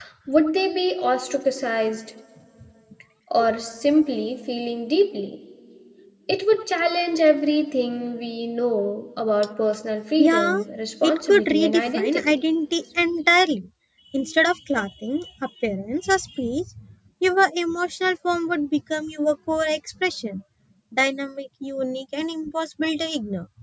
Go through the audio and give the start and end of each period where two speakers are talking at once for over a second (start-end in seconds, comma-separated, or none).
11.0-12.4